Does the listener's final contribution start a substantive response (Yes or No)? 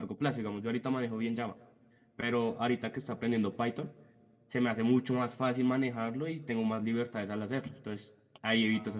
Yes